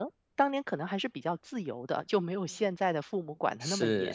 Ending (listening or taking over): taking over